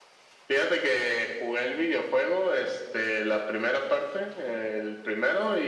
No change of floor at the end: Yes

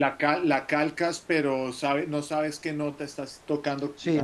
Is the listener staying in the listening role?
No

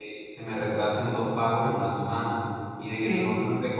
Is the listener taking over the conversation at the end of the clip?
No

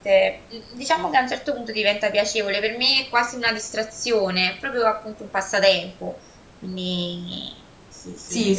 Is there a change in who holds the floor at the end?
Yes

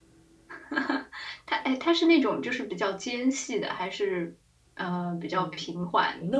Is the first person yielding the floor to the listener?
Yes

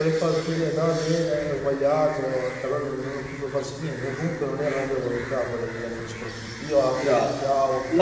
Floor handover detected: Yes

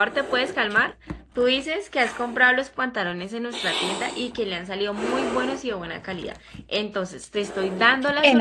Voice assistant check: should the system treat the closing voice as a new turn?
Yes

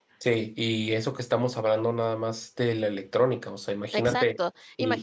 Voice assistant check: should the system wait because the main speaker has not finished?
No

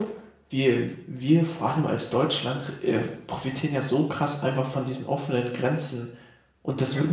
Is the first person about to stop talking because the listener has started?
No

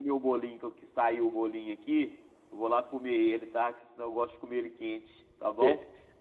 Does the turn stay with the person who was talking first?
No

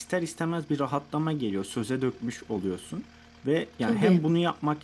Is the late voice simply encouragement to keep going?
Yes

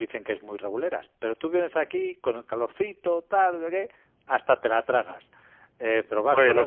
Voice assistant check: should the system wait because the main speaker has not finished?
Yes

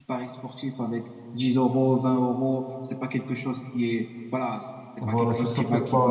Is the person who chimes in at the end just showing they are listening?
No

